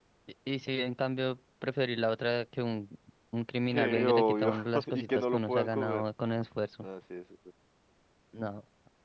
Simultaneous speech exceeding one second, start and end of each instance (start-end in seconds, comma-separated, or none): 3.7-6.0